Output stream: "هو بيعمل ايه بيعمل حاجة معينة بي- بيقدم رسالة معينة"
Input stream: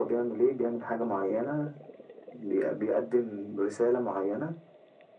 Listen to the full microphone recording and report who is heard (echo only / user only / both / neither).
echo only